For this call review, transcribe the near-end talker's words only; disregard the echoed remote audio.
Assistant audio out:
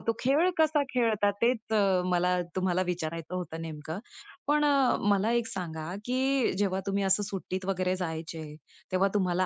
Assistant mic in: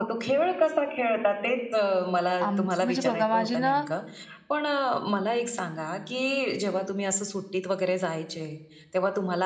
आमचं म्हणजे बघा माझे ना

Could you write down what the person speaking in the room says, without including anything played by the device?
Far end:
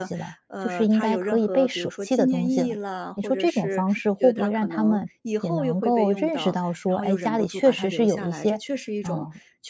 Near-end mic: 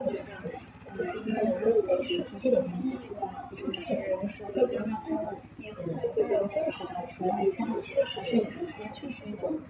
none

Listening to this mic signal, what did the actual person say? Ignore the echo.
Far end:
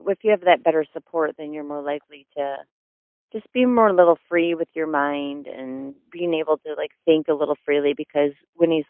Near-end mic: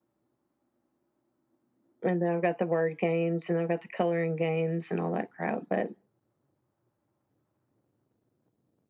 And then I've got the word games and I've got the coloring games and all that crap. But

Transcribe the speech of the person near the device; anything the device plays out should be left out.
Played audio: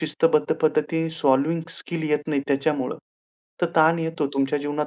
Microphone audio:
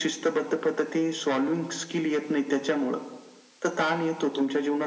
none

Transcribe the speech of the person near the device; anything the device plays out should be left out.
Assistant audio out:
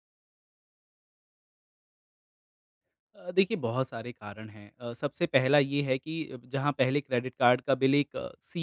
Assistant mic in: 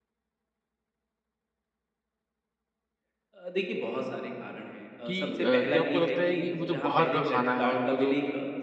कि अ, क्या आपको लगता है कि वो जो बाहर का खाना है और वो जो

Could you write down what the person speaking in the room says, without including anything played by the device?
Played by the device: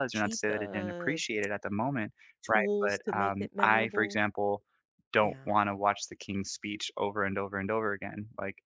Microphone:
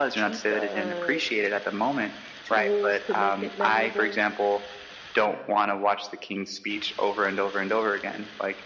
none

